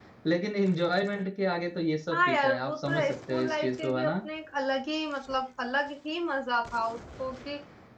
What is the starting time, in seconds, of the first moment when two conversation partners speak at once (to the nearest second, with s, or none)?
2 s